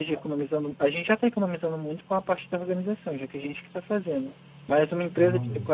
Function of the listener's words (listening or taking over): listening